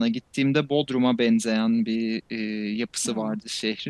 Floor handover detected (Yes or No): No